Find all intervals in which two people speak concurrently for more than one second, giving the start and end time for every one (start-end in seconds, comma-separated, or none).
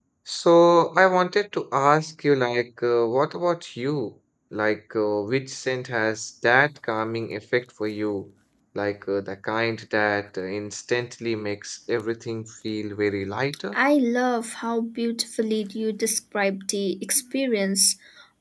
none